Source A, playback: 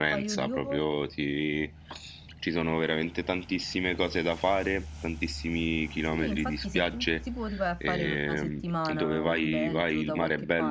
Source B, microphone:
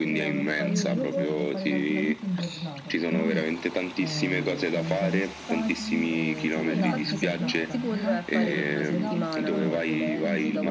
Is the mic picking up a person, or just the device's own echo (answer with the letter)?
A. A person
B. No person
A